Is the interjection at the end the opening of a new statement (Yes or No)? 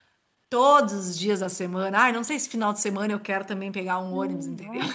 Yes